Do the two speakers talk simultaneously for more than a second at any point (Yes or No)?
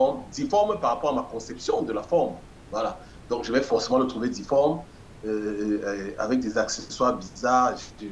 No